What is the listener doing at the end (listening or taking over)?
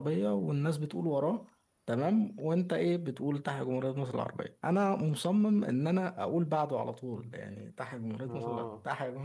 listening